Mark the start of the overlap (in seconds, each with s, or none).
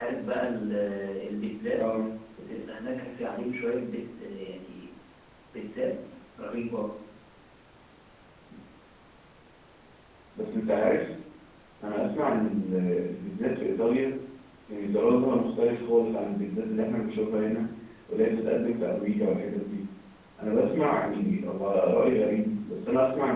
none